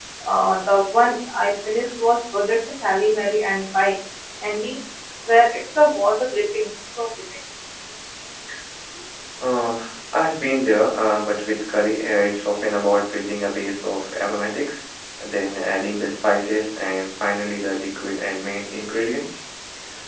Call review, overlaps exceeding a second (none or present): none